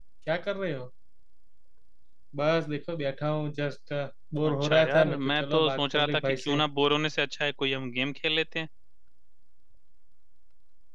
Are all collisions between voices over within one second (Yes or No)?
No